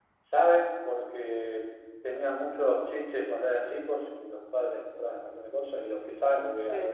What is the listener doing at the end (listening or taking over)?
listening